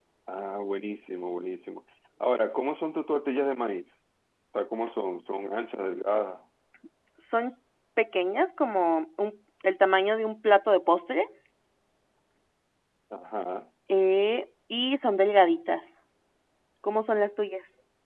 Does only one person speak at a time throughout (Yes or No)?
Yes